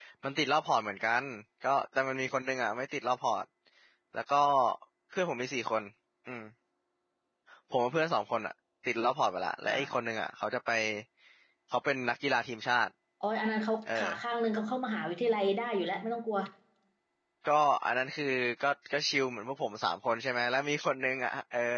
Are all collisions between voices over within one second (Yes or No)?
Yes